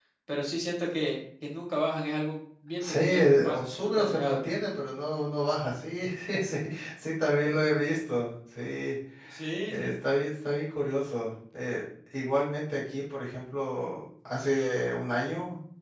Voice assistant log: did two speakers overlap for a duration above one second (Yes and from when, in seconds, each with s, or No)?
Yes, from 2.8 s